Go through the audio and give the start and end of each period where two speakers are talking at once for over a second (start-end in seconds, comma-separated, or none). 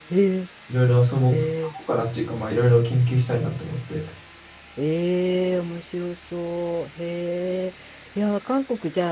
none